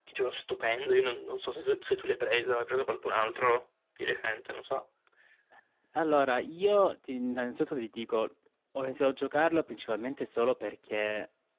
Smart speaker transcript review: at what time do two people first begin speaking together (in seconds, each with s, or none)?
none